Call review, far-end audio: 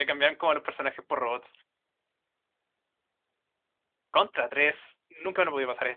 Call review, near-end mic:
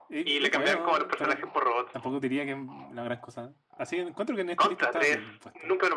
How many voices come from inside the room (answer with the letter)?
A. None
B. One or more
B